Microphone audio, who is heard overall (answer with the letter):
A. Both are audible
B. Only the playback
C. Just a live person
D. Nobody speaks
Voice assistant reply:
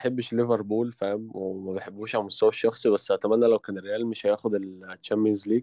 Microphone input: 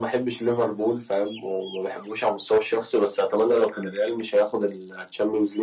B